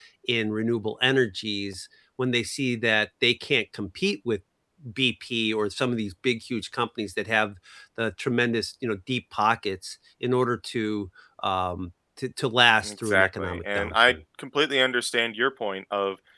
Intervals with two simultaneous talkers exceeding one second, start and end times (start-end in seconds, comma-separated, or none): 12.8-14.2